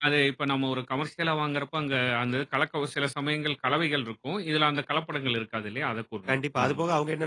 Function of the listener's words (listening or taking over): taking over